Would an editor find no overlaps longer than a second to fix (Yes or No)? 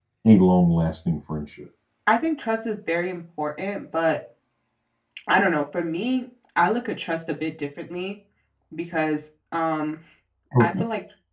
Yes